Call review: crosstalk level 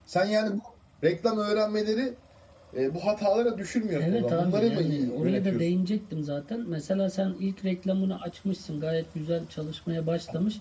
present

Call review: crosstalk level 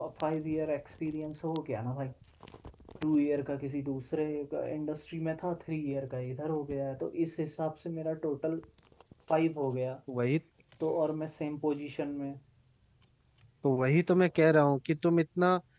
none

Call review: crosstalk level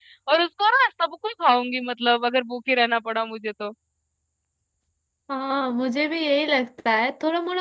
none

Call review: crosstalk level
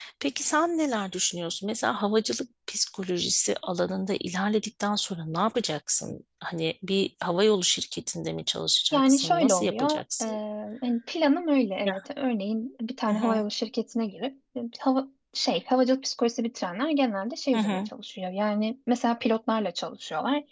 present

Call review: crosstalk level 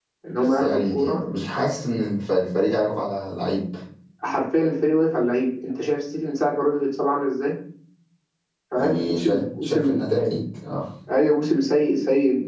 present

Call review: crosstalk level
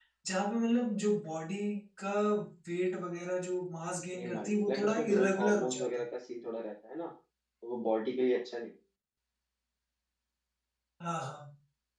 present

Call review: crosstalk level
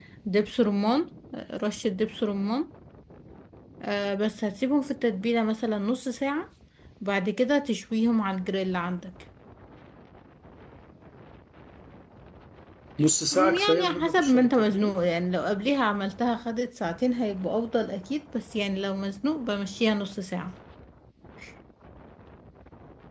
present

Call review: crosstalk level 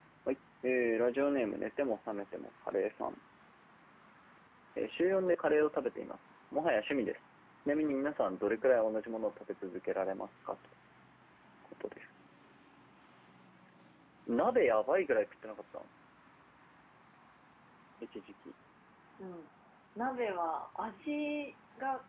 none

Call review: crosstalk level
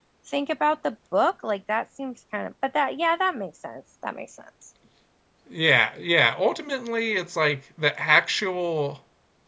none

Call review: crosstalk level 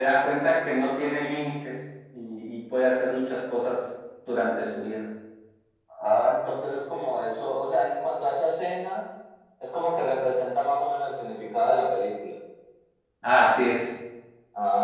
none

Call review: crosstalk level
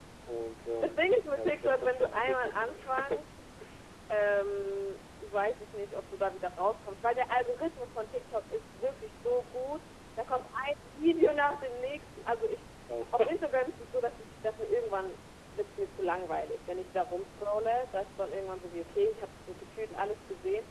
present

